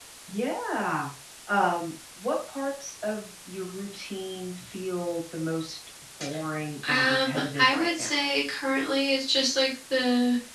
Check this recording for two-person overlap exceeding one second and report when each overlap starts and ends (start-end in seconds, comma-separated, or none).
6.9-8.1